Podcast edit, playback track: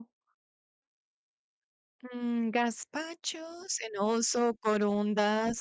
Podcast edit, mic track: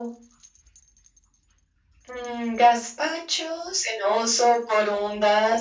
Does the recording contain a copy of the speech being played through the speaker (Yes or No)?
Yes